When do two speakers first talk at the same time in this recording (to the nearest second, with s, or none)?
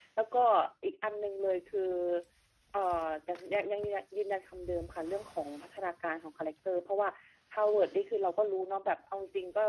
none